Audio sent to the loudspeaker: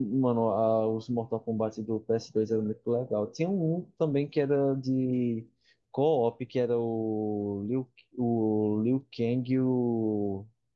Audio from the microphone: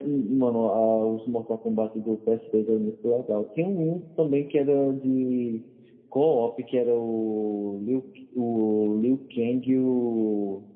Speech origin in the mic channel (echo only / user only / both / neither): echo only